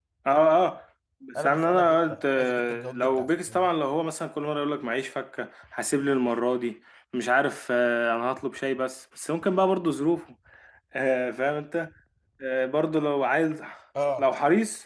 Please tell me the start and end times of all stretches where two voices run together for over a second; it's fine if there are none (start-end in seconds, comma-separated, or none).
1.4-3.7